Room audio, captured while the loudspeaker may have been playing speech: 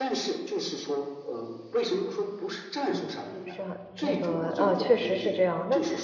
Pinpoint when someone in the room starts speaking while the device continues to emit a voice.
3 s

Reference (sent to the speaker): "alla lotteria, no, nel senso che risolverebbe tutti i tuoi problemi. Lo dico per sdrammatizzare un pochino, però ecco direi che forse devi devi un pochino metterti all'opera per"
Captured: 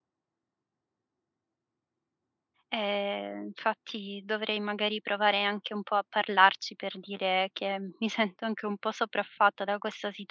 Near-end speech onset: 3 s

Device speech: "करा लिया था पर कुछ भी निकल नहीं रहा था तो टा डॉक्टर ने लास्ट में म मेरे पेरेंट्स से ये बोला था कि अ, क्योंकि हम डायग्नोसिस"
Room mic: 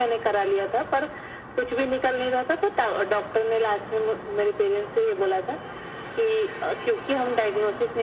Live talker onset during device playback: none

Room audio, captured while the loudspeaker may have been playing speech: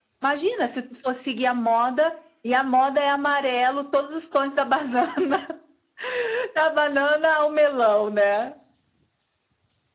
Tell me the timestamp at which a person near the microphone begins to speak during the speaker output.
none

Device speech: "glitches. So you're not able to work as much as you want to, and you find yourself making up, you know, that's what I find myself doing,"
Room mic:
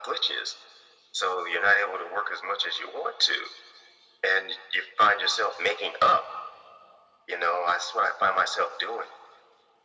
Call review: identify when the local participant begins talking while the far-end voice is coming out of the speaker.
none

